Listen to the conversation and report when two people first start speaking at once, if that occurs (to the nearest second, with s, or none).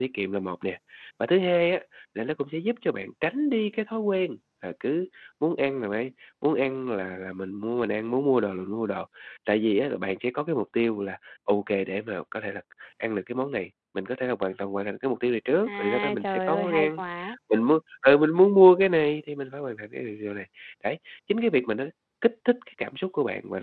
16 s